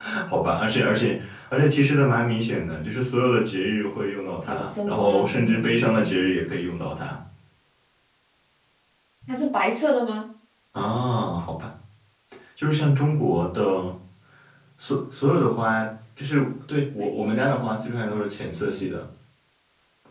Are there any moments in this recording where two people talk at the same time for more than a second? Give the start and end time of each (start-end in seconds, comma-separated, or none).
4.5-6.3, 17.0-18.9